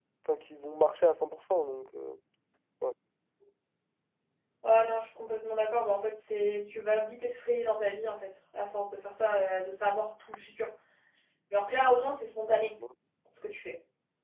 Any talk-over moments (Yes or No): No